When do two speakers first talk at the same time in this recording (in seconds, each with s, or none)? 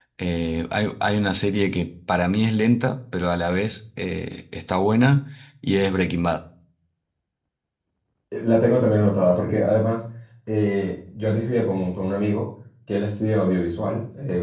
none